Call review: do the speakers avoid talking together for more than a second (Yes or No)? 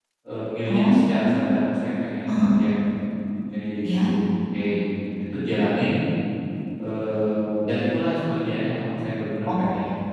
Yes